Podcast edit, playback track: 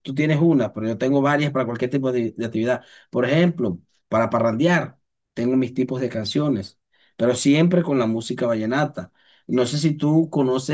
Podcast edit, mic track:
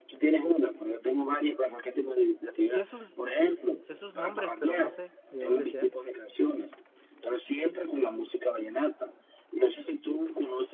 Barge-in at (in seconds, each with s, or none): 2.7 s